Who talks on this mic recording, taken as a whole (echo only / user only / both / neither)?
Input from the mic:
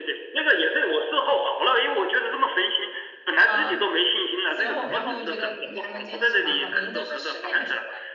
both